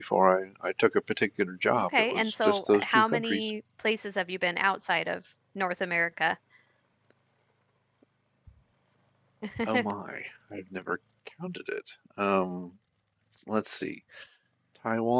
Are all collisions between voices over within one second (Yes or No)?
No